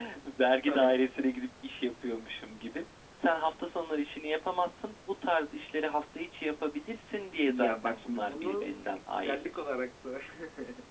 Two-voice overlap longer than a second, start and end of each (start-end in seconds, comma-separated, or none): 7.5-9.4